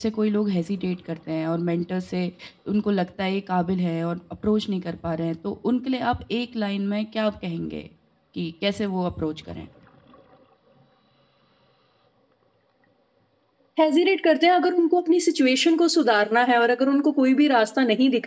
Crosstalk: none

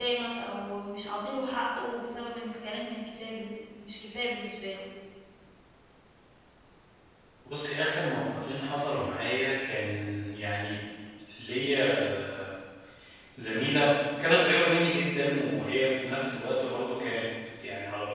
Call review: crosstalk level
none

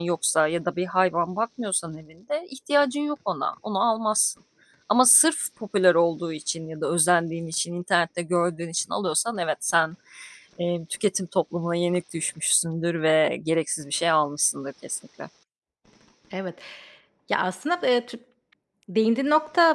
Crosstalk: none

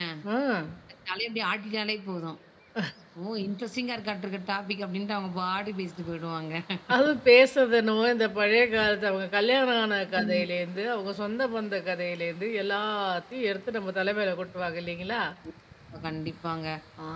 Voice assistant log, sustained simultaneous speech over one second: none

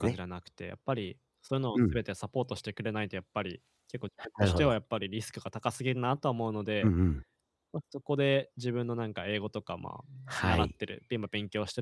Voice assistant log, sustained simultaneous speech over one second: none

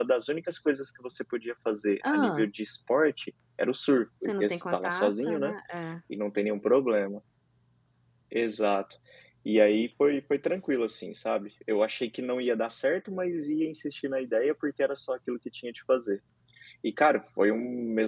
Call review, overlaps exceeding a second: present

